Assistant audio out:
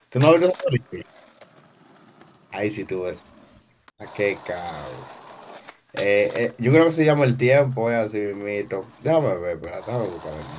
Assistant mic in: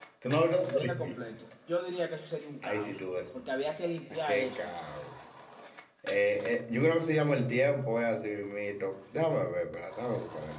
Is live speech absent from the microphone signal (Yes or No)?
No